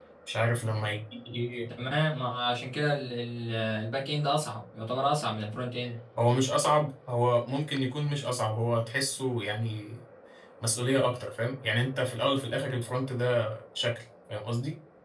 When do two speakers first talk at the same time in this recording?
none

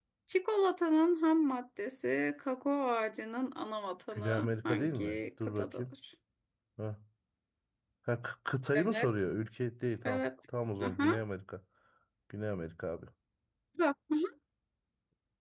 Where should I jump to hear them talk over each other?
4.1 s

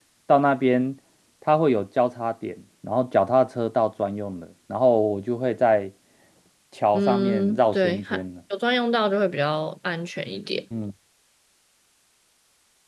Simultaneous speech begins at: 6.9 s

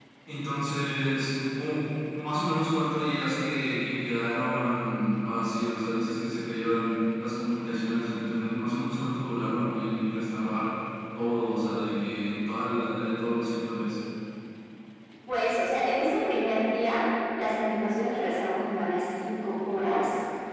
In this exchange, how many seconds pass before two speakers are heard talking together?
none

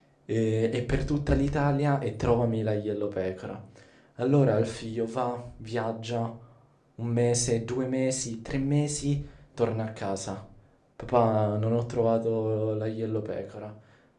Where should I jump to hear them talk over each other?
none

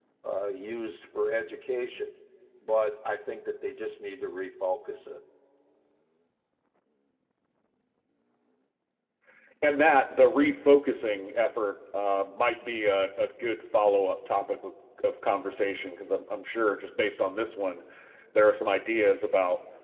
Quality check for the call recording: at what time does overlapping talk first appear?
none

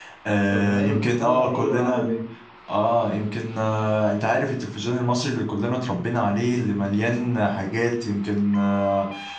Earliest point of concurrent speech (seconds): 0.5 s

